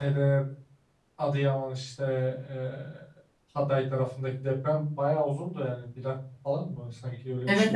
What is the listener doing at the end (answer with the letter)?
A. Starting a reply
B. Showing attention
A